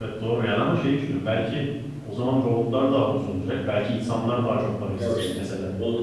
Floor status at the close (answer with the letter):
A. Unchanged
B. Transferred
B